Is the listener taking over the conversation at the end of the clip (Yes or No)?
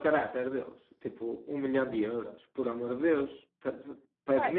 Yes